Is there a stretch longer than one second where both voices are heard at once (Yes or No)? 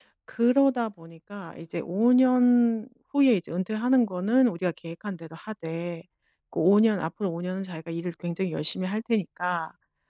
No